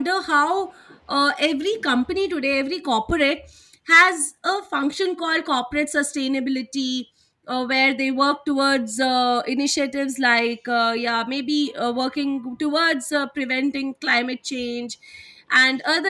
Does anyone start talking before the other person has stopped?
No

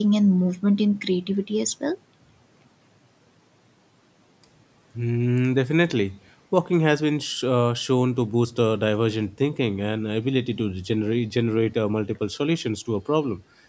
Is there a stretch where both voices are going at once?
No

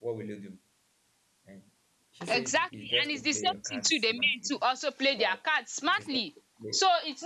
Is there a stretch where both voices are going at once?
Yes, from 2.3 s

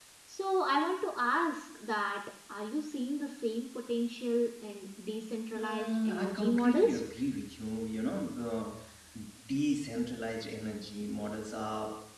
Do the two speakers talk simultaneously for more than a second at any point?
Yes, from 5.5 s

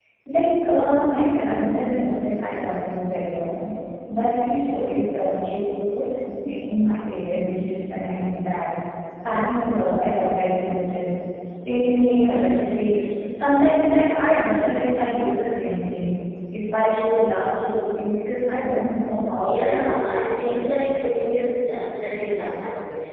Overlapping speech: Yes, from 19.4 s

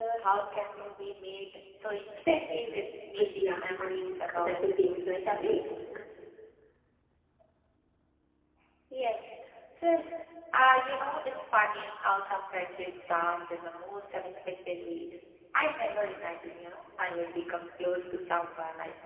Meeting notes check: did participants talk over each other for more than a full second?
Yes, from 3.2 s

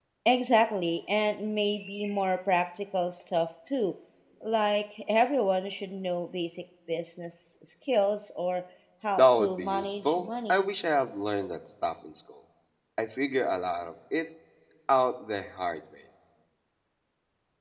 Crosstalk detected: Yes, from 9.2 s

